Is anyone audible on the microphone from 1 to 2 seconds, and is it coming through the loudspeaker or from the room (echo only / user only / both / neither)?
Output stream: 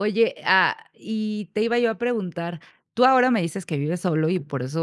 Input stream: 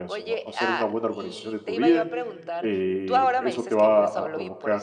both